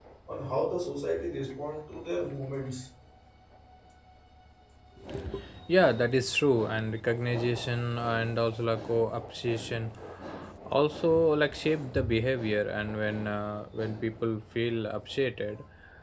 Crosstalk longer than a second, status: none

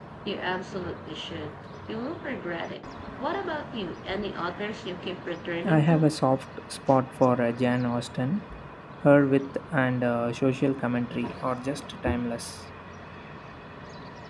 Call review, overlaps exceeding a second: none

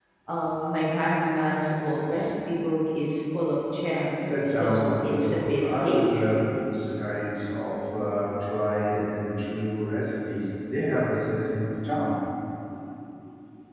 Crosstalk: present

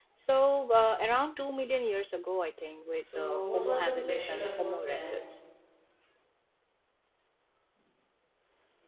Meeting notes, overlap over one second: present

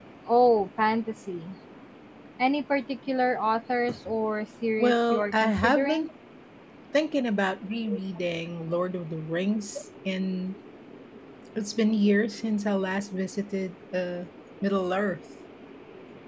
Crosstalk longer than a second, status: present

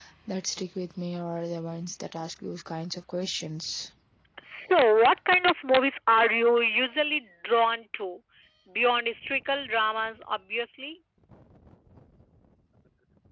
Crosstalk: none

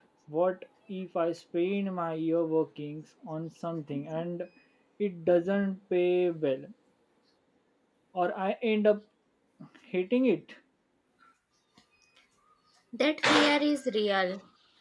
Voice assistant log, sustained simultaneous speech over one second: none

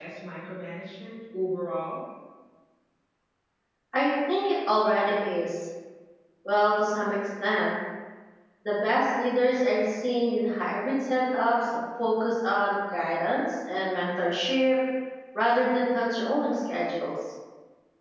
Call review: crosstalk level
none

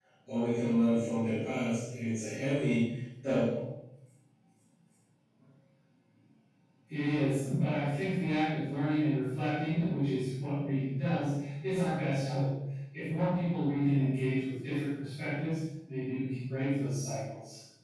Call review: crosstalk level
none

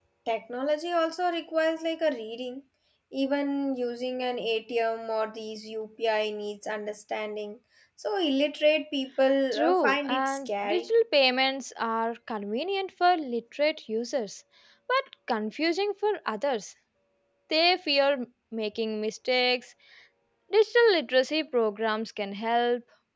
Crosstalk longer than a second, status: present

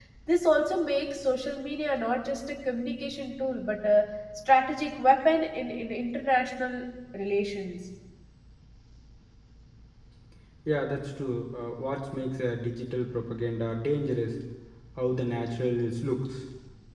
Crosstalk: none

